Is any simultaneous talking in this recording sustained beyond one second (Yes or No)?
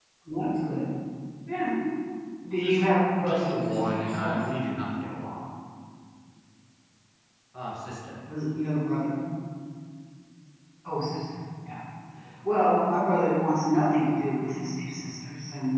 Yes